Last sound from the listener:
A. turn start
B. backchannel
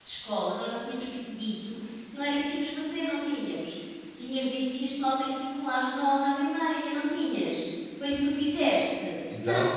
A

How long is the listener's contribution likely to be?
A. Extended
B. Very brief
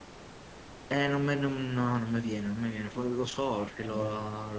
B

